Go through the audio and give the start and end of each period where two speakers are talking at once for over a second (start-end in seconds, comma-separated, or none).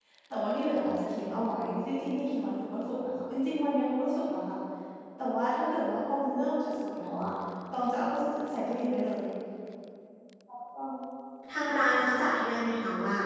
none